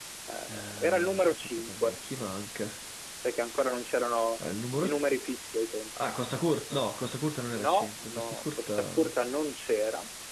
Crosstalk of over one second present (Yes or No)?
Yes